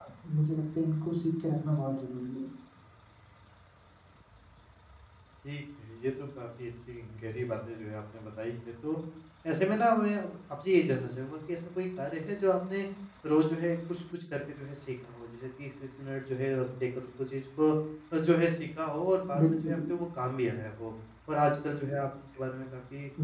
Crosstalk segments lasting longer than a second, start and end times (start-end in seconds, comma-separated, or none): none